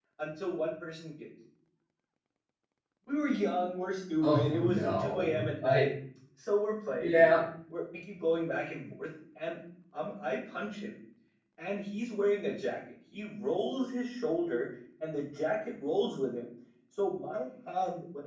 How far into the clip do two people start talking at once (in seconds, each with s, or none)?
4.2 s